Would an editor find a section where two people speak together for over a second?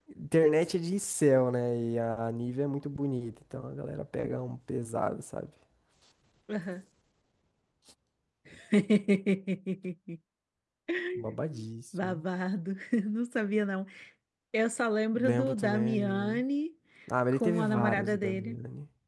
Yes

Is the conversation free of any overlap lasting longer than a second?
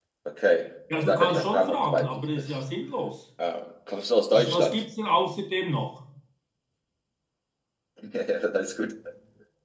No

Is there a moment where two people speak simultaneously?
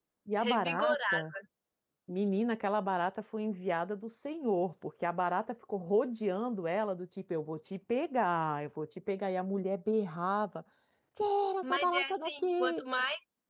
Yes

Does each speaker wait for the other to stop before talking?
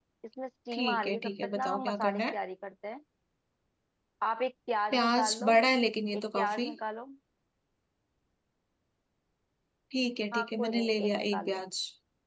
No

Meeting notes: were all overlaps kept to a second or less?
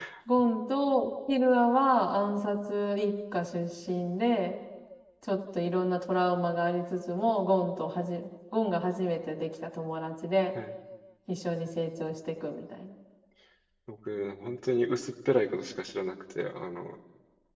Yes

